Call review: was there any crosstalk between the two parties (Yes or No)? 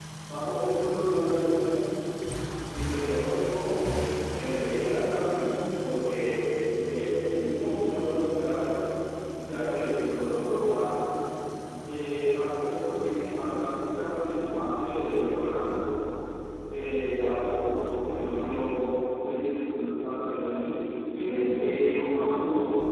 No